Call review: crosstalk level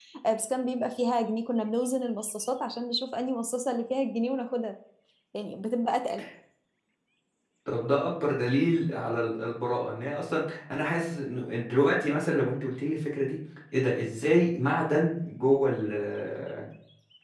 none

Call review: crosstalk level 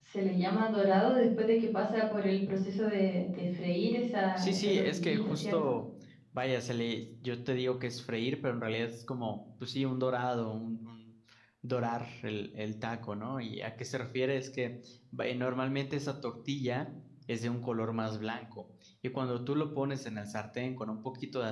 present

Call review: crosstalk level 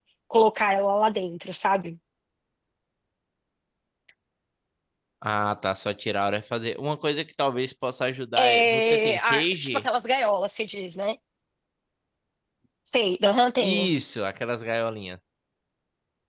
present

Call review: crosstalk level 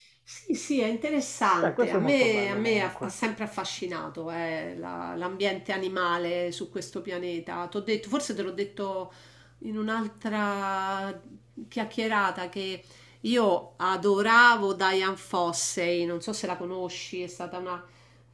present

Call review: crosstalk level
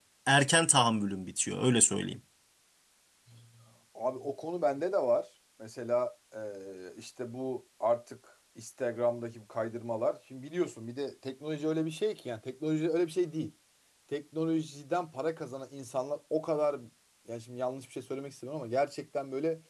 none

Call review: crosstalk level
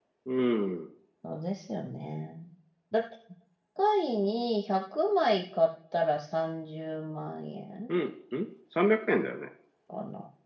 none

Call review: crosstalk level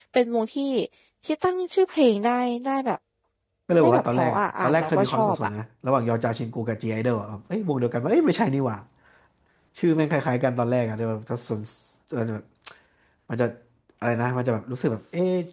present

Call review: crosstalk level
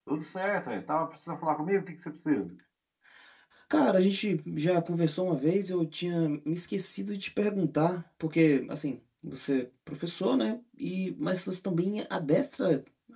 none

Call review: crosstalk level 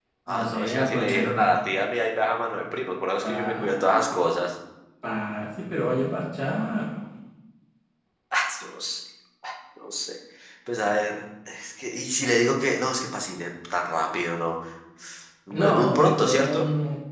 present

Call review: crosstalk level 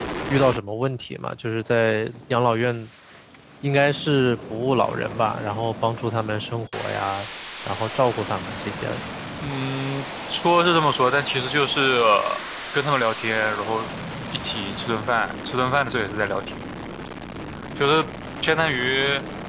none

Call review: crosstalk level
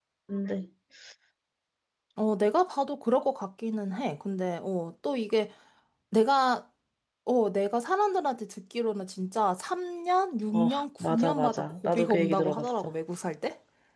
present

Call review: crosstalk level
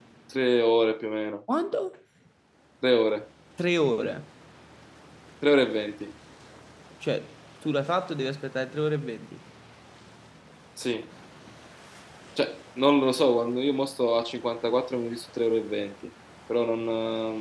none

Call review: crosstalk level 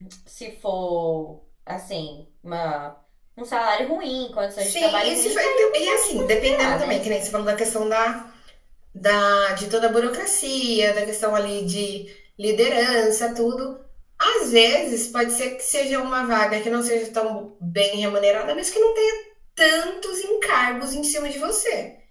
present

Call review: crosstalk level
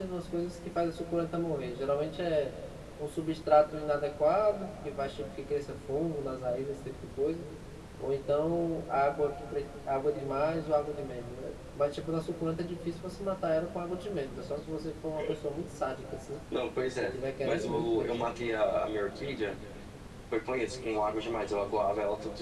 present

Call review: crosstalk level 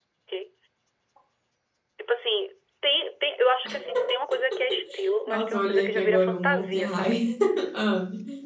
present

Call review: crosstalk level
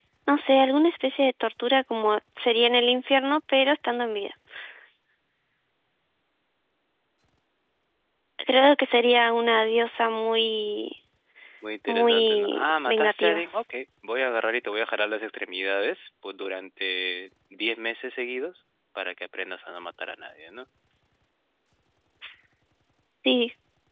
present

